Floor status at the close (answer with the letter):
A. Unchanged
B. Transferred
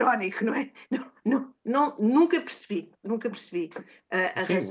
B